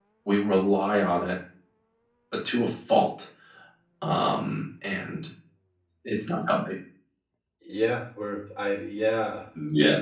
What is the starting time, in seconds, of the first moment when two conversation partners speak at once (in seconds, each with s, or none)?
none